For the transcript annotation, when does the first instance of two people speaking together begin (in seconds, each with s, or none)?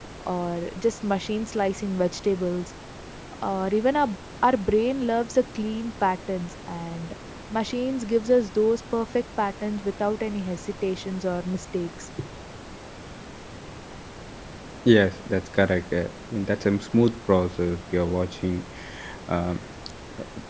none